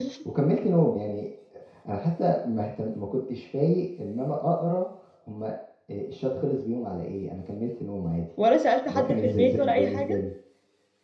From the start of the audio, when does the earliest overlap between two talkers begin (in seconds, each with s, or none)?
8.9 s